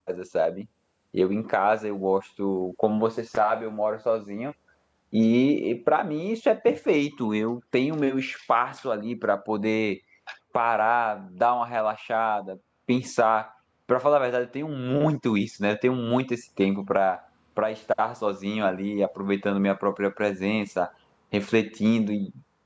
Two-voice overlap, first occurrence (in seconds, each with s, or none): none